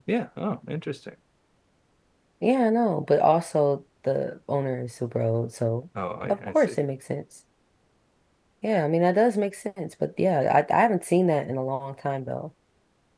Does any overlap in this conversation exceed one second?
No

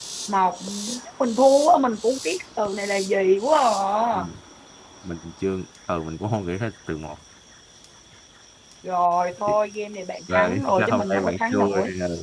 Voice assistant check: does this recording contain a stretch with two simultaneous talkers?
Yes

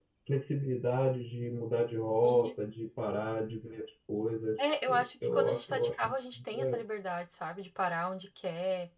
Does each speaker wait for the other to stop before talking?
No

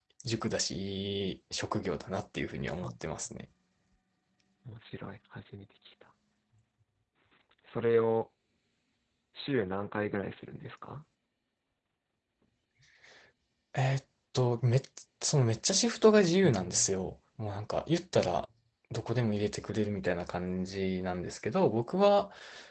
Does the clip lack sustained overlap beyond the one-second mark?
Yes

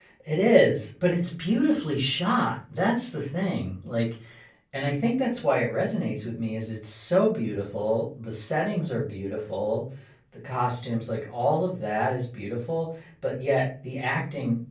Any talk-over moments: No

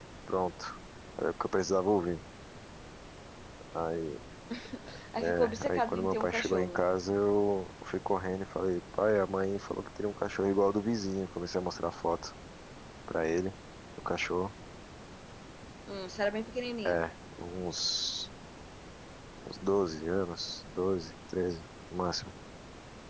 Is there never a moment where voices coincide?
No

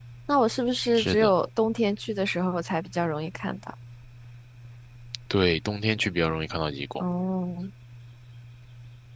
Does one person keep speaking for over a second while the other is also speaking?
No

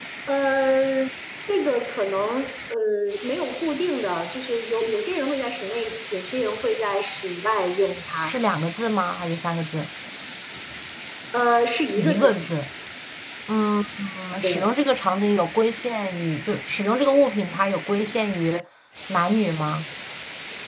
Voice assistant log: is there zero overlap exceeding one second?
Yes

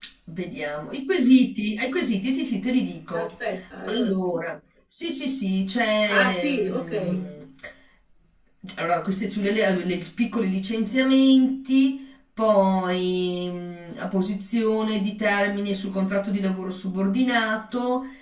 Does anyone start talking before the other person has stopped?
Yes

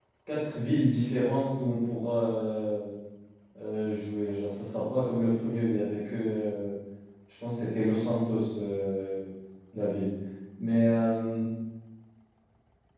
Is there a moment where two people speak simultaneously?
No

